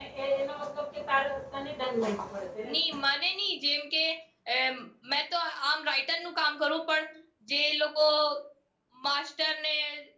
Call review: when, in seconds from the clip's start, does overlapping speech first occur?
none

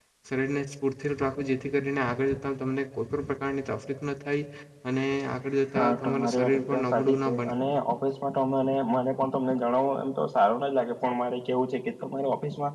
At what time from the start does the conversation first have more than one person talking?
5.8 s

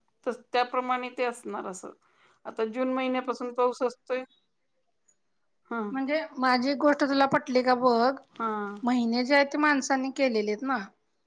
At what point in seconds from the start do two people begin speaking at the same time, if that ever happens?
none

